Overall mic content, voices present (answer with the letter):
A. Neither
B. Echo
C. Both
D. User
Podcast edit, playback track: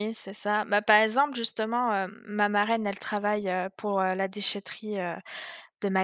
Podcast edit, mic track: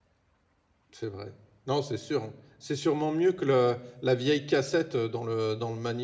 D